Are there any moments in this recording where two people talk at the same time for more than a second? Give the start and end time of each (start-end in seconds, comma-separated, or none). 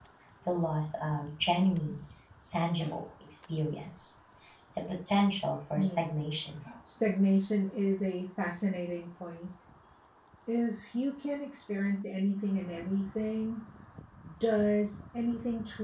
none